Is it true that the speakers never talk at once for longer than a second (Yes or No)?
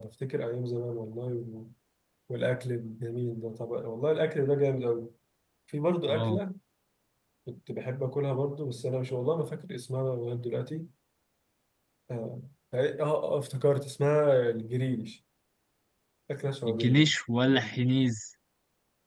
Yes